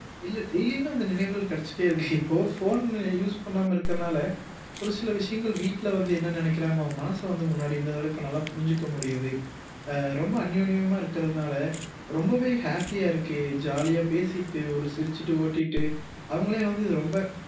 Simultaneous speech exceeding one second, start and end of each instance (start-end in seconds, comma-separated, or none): none